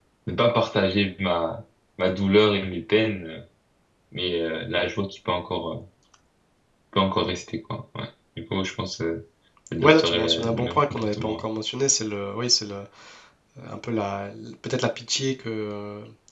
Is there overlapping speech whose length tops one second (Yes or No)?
Yes